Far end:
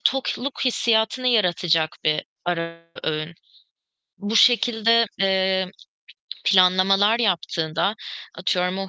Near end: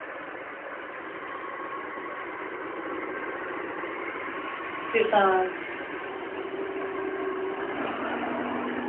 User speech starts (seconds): 4.9 s

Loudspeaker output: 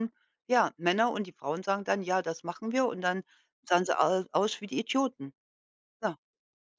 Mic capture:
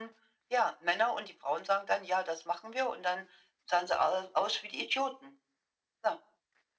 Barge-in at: none

